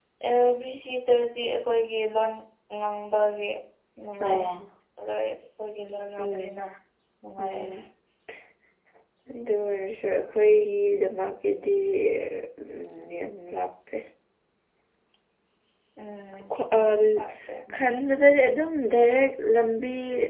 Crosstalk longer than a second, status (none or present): none